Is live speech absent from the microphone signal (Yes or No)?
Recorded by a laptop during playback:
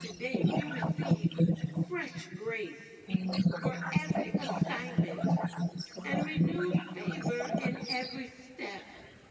No